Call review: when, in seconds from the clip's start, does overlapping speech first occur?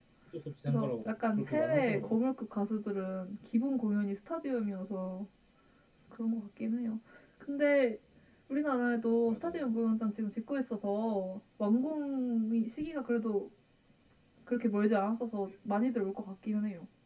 1 s

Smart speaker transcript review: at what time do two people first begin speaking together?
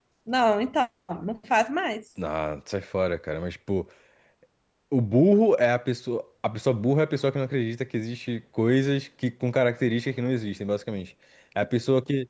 none

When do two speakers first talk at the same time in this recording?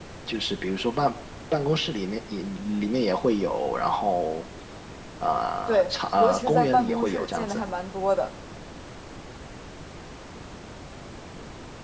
6 s

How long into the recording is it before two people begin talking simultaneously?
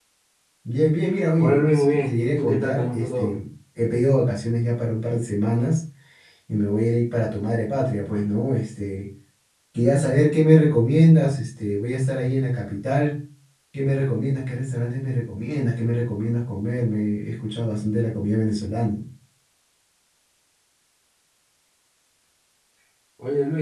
1 s

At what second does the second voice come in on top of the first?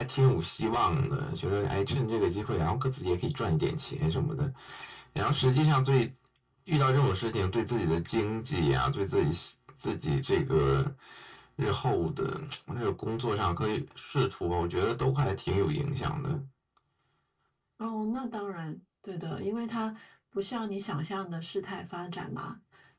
none

